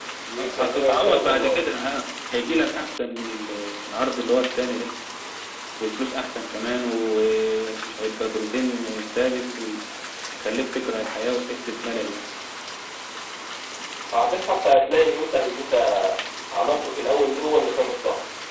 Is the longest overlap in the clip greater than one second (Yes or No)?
Yes